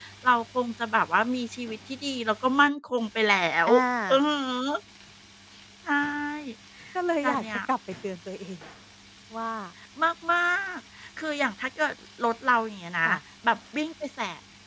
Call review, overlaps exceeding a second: none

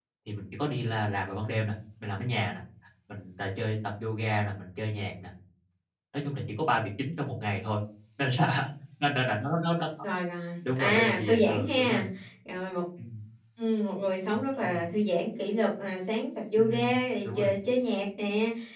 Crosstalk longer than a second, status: present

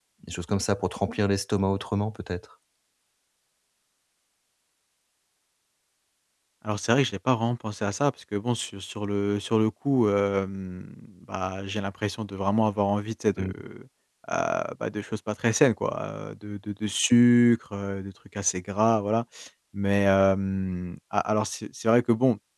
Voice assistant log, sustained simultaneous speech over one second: none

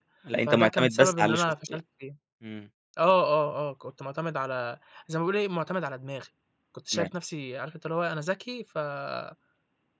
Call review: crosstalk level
present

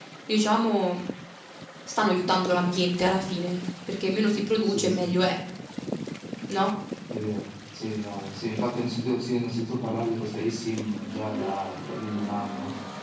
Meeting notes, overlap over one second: none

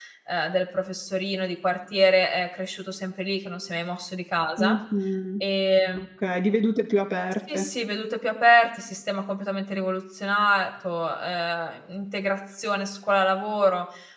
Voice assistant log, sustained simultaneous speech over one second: none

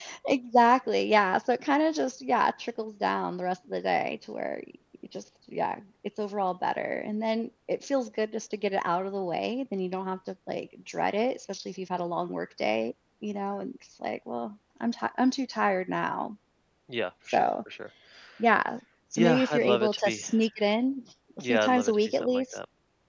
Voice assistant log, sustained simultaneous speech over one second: present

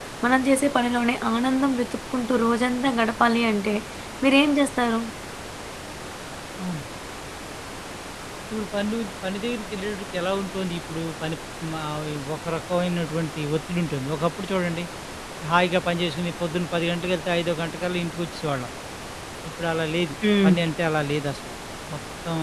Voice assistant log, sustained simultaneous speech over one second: none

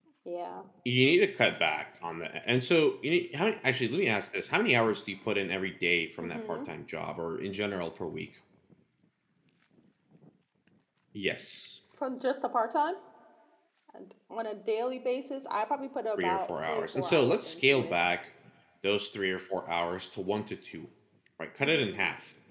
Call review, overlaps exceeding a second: present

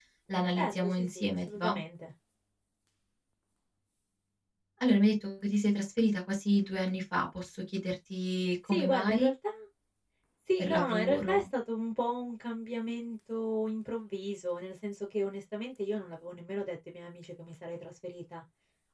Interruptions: present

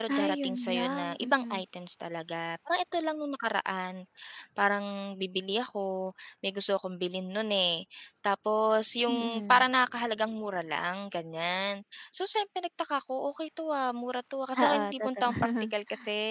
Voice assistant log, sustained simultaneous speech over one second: present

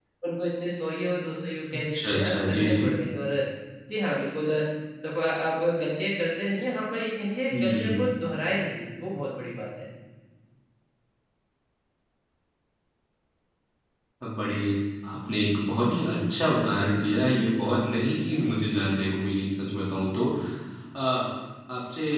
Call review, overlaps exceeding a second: present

